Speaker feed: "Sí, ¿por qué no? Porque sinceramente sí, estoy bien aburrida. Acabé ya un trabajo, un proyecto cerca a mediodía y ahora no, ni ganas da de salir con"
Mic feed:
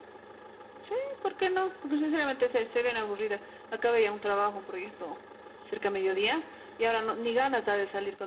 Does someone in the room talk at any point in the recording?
No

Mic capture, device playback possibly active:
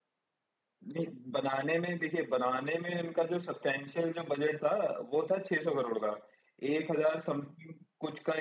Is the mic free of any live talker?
Yes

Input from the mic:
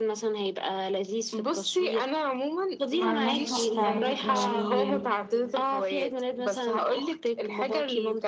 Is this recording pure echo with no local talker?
No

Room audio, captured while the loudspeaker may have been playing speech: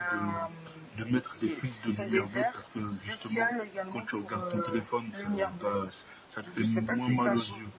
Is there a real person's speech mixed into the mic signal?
No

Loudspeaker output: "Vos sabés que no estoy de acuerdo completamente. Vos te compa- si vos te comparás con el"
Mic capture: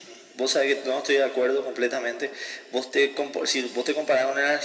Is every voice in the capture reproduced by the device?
Yes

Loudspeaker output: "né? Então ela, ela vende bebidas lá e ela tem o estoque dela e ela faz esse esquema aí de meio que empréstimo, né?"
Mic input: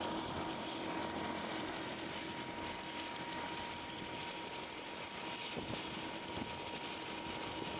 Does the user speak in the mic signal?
No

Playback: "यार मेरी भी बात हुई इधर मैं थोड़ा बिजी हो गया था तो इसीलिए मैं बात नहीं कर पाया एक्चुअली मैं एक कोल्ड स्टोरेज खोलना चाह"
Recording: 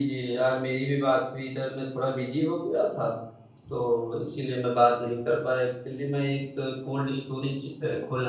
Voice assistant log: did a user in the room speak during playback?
No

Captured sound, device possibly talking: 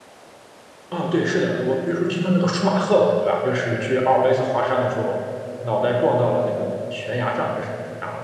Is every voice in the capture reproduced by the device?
No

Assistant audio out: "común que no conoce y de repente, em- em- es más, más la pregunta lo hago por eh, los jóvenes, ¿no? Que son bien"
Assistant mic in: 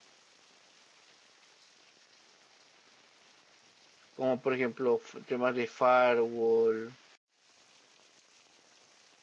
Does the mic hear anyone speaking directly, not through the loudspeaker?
Yes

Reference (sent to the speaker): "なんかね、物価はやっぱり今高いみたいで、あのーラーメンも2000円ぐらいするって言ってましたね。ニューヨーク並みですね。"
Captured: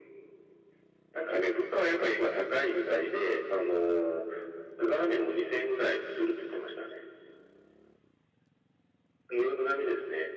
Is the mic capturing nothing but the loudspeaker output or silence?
Yes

